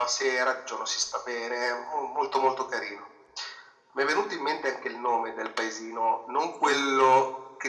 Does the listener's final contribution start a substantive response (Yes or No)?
No